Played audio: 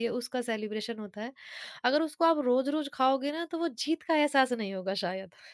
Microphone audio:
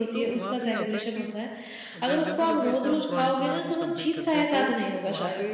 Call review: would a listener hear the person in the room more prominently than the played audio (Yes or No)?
No